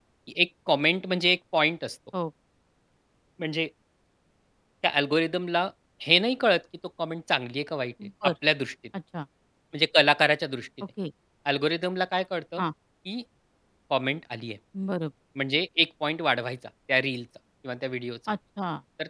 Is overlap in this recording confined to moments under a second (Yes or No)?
Yes